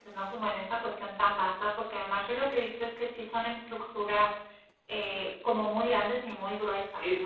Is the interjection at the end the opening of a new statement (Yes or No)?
Yes